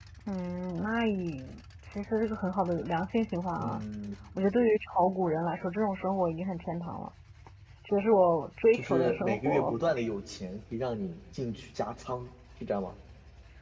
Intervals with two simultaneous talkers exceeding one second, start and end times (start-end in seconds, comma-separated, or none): 8.7-10.1